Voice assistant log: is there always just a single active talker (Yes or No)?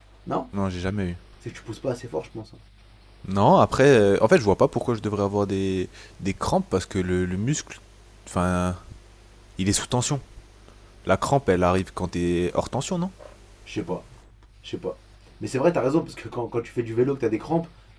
Yes